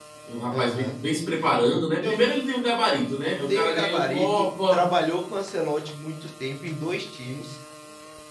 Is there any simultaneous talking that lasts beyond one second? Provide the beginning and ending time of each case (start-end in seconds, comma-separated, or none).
3.2-4.9